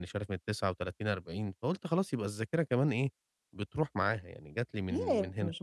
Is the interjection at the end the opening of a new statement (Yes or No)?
Yes